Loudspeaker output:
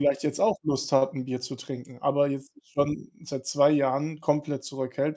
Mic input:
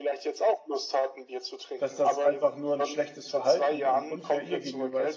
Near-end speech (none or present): present